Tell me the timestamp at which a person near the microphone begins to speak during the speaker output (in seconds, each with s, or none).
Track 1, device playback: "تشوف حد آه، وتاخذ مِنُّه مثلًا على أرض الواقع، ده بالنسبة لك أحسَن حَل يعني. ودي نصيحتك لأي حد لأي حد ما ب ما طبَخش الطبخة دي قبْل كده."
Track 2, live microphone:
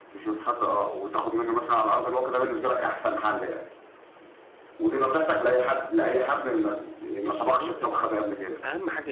7.2 s